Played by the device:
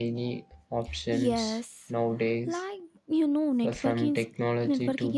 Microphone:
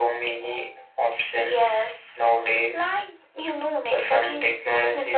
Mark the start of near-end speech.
none

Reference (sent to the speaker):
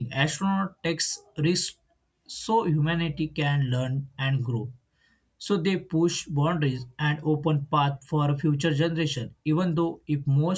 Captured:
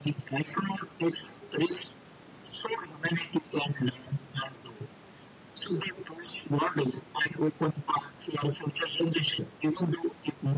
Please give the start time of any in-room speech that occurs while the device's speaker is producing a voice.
none

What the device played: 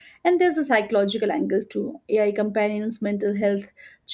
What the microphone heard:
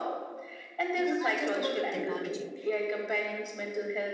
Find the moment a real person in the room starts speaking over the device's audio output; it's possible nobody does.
0.9 s

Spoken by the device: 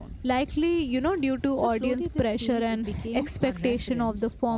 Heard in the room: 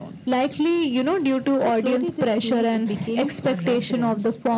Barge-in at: none

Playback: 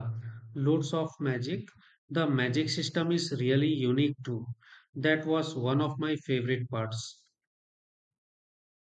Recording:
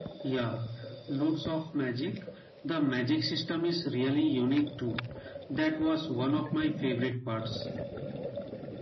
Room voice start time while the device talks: none

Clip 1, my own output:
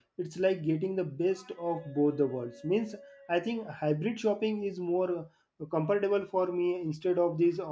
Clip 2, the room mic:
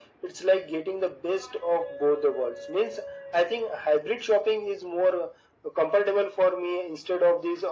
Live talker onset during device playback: none

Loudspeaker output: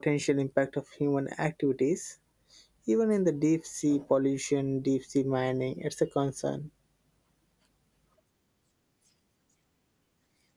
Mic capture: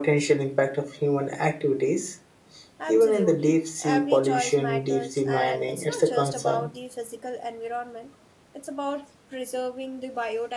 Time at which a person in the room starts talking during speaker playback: 2.8 s

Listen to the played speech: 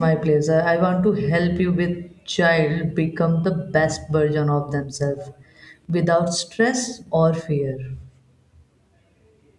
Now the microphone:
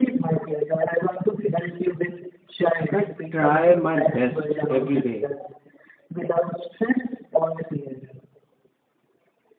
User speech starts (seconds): 2.9 s

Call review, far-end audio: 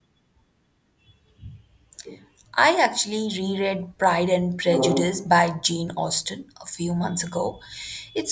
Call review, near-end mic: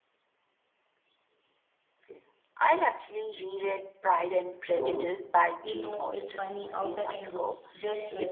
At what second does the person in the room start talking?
5.6 s

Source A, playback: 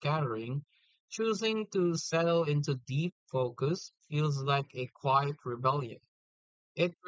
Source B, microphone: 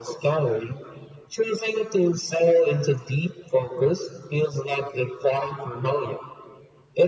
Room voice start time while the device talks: none

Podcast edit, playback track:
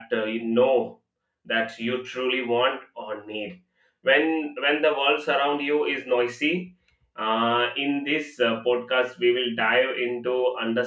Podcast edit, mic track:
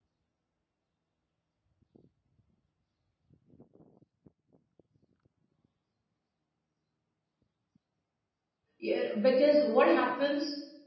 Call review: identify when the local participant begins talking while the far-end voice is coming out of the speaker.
8.8 s

